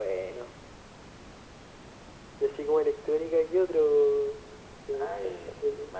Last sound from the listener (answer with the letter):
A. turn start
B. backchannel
A